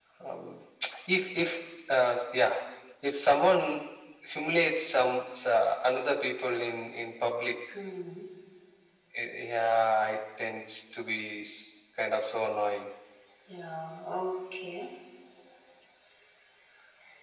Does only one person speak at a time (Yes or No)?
Yes